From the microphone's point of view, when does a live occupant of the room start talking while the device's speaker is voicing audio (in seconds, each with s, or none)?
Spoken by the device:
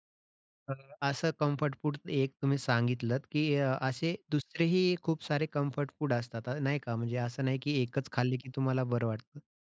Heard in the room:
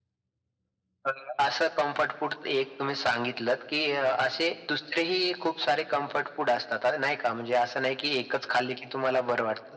none